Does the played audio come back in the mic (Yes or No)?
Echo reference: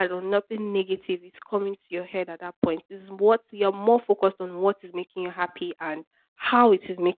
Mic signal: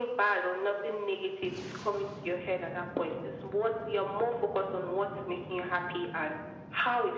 Yes